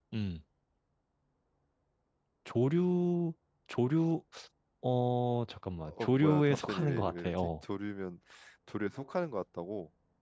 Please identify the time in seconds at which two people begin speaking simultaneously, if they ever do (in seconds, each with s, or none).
5.8 s